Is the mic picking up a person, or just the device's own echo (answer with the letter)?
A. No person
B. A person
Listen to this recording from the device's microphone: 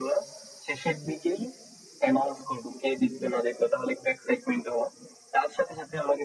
A